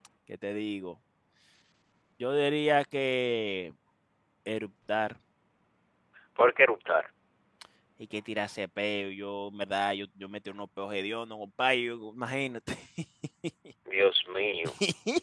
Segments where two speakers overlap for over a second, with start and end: none

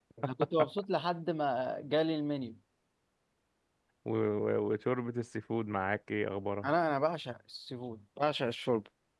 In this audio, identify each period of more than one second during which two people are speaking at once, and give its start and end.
none

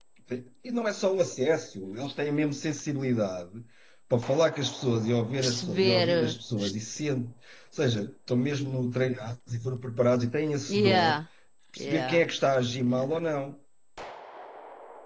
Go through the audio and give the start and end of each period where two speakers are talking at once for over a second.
5.4-6.7

